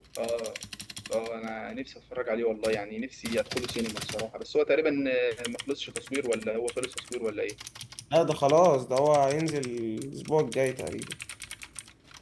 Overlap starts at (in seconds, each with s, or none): none